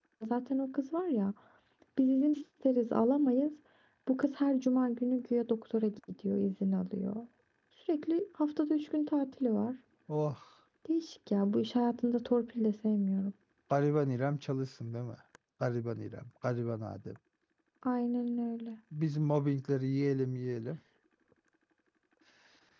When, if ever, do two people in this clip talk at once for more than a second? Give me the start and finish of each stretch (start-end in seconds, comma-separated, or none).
none